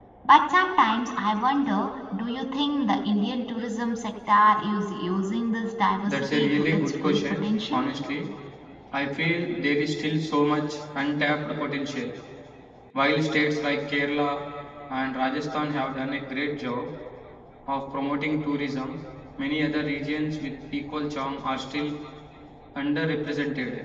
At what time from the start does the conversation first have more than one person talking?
6.0 s

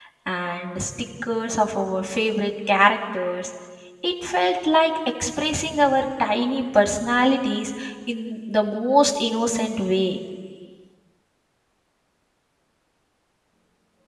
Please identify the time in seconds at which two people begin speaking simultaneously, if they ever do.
none

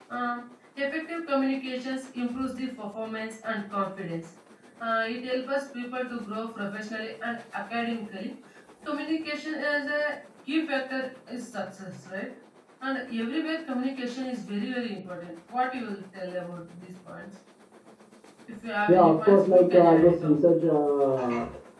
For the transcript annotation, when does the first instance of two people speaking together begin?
18.9 s

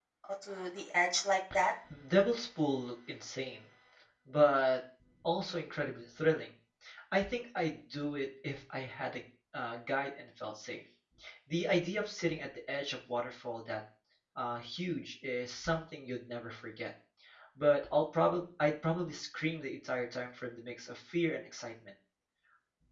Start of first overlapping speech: none

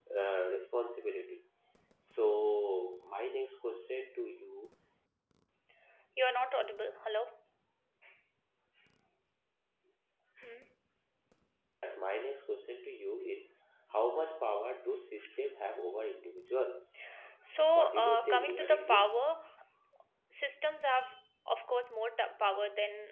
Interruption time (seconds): 17.7 s

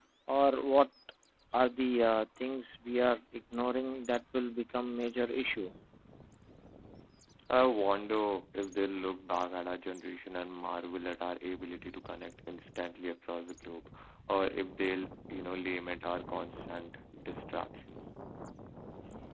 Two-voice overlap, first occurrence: none

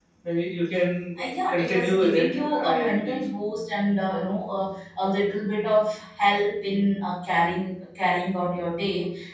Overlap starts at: 1.2 s

